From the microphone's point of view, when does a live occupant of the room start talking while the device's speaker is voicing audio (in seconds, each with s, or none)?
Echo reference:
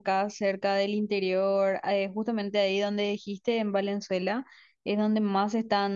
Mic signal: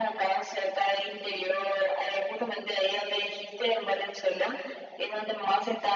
none